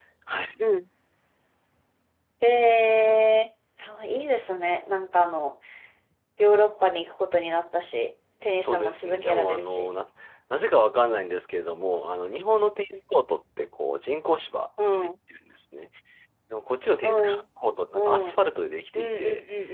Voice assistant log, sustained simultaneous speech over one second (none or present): present